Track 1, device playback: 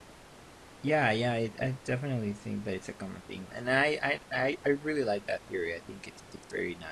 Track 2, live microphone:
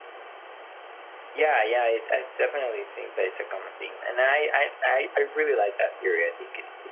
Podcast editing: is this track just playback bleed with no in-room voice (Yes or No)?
Yes